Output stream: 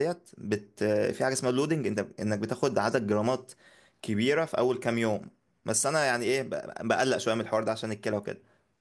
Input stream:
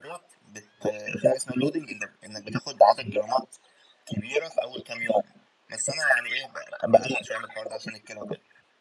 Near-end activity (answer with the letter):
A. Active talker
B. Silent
B